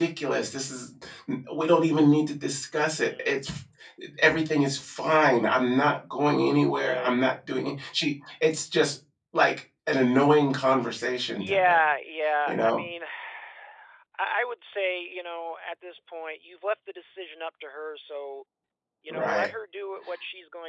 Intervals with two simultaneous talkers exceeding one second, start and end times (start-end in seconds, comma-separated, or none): none